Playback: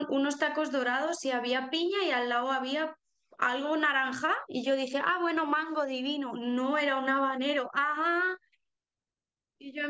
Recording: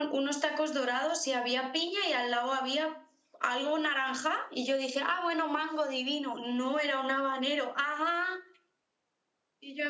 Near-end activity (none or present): none